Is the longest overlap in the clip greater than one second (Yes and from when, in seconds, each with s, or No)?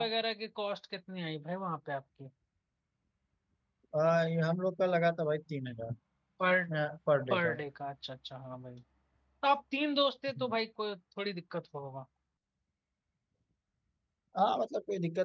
No